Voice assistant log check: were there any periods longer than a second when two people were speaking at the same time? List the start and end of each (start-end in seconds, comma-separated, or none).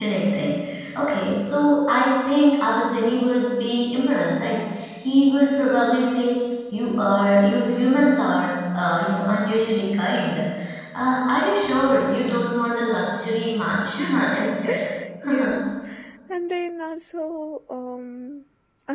none